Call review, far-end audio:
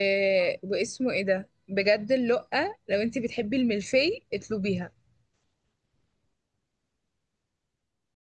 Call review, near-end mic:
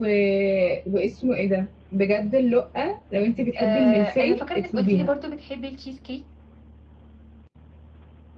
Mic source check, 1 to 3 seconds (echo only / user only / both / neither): echo only